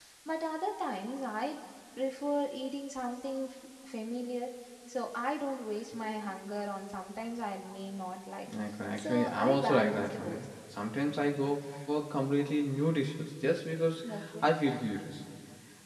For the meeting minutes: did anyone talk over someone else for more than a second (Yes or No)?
Yes